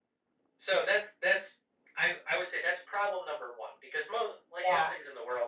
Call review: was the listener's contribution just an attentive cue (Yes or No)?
Yes